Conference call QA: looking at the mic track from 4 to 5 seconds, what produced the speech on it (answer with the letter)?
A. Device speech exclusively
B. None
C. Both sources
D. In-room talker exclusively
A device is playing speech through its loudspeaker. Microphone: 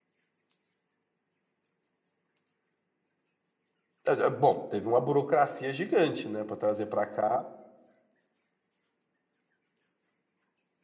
D